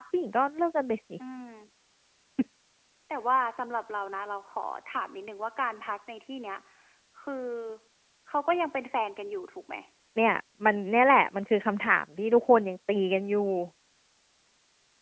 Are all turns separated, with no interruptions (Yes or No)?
Yes